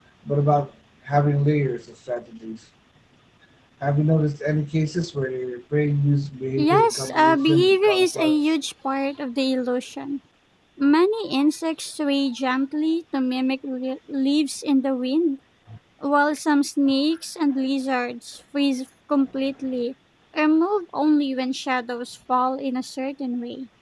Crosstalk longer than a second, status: present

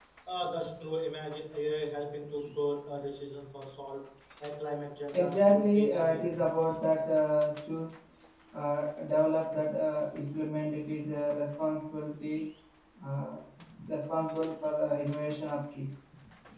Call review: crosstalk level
present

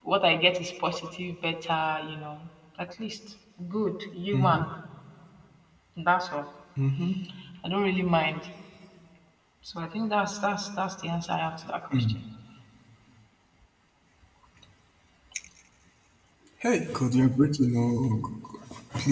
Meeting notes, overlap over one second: none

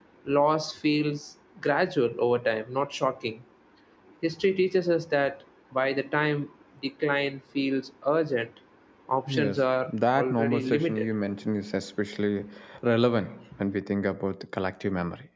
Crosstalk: present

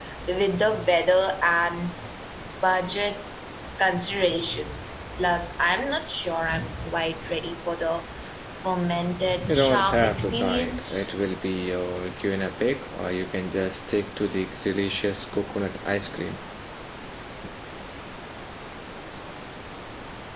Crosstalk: present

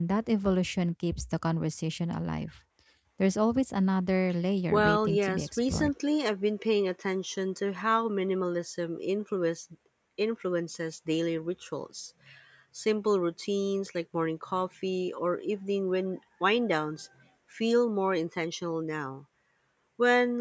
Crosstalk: present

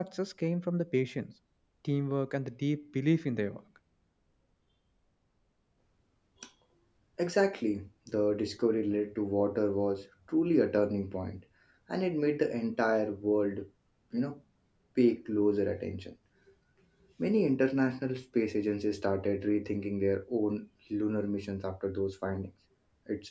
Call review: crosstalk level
none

